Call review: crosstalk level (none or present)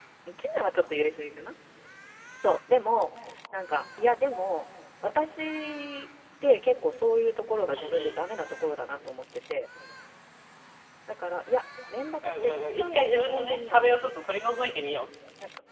present